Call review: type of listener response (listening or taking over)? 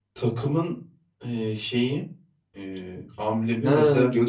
taking over